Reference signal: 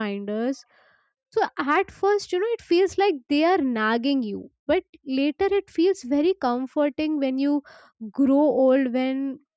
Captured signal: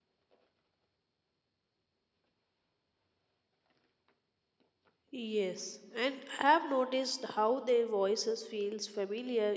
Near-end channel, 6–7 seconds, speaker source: user only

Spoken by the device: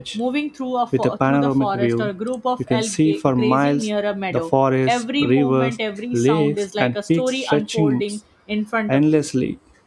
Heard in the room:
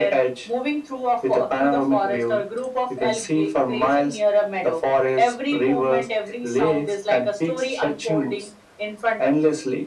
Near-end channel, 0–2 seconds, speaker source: echo only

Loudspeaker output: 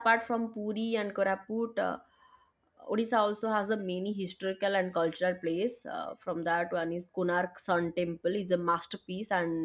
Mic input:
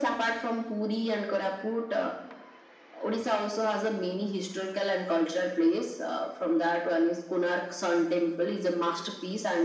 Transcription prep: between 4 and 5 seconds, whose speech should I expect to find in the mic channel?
echo only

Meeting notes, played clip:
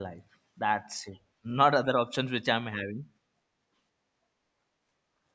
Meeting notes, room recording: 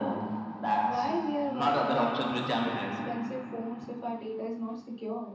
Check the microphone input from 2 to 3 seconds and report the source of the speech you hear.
both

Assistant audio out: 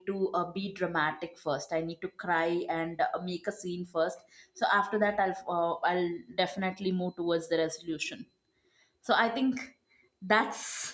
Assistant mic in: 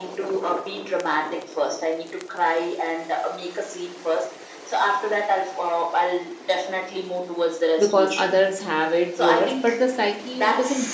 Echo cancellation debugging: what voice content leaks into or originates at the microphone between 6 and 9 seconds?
both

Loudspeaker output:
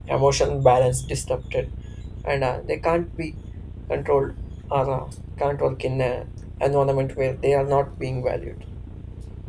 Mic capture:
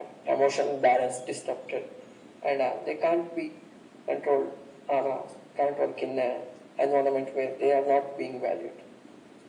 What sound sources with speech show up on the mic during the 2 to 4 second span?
echo only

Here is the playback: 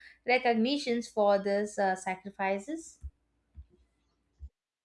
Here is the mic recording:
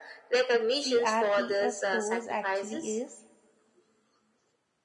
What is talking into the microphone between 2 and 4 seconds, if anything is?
both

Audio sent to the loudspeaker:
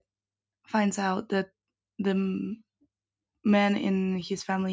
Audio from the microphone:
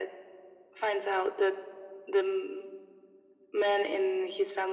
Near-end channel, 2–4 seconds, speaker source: echo only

